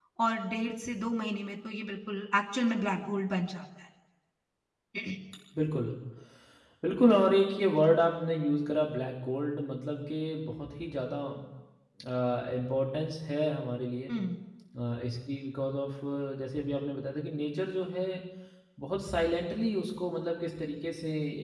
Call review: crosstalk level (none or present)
none